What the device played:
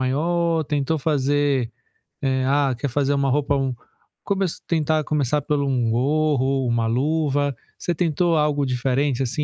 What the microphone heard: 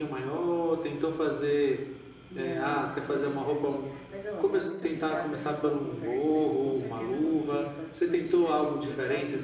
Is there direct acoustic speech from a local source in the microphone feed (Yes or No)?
Yes